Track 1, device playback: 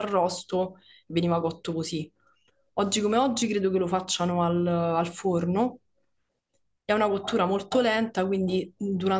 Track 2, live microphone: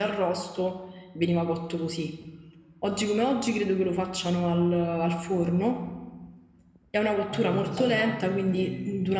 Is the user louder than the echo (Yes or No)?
No